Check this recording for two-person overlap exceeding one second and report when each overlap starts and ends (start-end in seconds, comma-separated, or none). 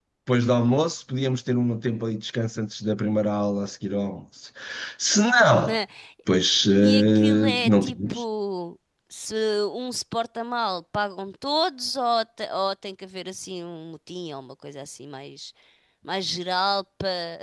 6.8-8.2